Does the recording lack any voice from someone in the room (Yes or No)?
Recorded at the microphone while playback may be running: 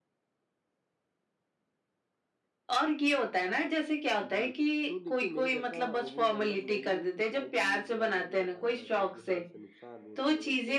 No